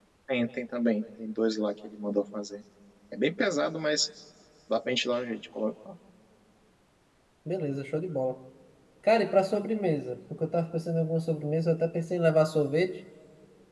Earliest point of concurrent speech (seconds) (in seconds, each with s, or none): none